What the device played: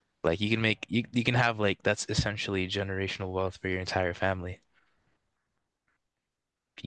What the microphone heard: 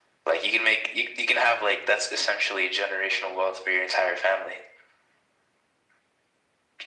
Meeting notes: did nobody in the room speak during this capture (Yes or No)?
Yes